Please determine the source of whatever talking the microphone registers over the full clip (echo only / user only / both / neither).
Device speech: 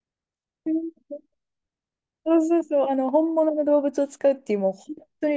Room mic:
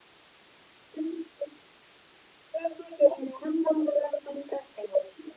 echo only